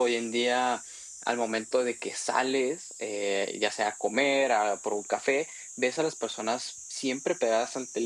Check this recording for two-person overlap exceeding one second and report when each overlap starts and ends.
none

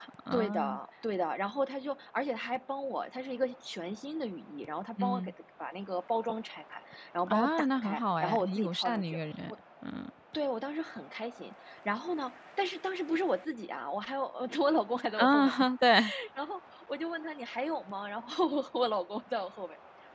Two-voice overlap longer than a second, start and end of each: 7.3-9.2

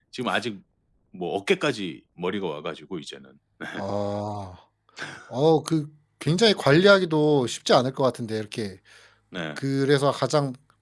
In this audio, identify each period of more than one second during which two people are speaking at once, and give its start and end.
none

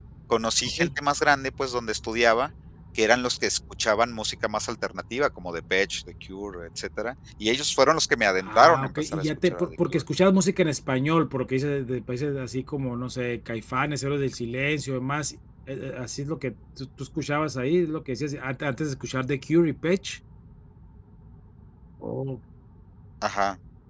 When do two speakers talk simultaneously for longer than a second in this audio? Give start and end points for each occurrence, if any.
8.4-10.0

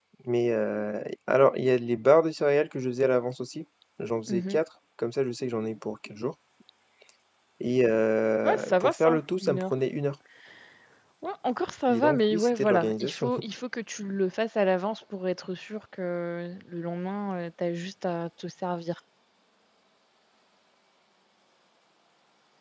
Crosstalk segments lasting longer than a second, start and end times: 8.4-9.7, 11.9-13.3

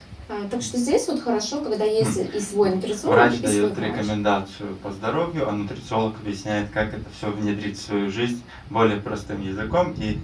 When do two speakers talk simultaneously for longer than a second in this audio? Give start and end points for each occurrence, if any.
2.6-4.1

